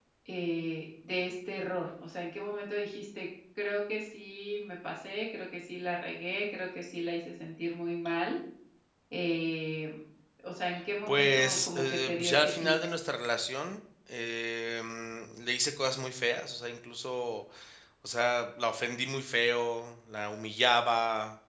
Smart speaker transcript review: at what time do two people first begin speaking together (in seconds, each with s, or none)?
11.1 s